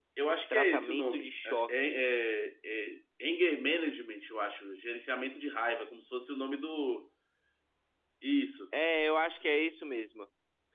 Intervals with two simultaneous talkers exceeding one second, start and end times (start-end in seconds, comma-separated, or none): 0.5-2.1